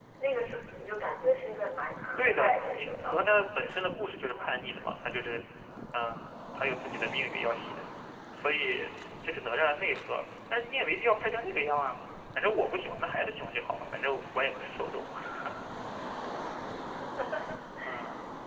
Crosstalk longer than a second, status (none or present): present